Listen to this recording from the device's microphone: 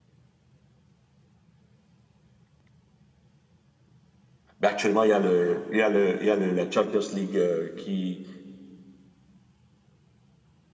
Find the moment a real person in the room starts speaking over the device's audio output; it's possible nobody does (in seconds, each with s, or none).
4.6 s